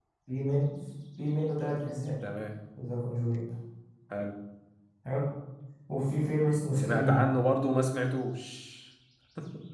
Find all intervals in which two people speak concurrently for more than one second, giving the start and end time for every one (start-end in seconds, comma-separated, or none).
none